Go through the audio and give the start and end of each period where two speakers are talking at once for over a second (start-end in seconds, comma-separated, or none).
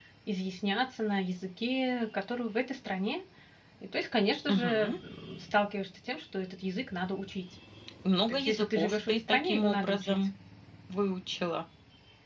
8.3-10.2